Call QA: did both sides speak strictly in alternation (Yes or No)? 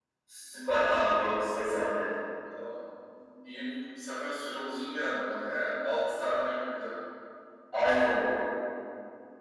Yes